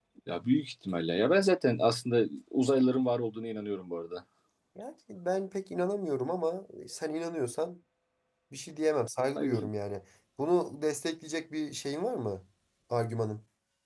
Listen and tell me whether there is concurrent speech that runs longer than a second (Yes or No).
No